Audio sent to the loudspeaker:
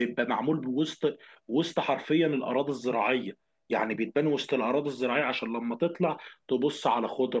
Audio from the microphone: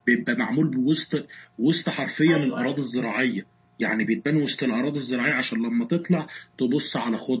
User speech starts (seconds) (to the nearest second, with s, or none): 2 s